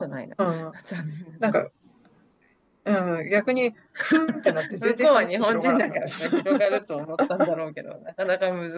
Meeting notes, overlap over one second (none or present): present